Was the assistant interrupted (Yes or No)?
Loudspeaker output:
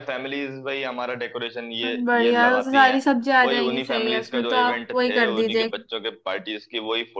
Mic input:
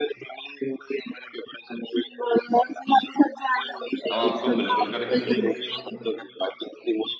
Yes